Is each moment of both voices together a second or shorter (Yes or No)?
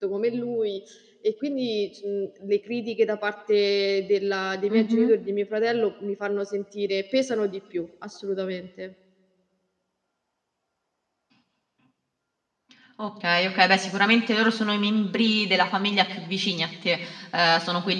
Yes